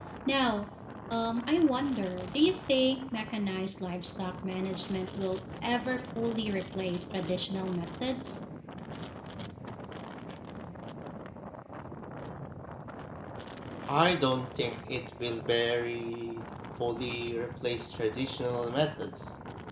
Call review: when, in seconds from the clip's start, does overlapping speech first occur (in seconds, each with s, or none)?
none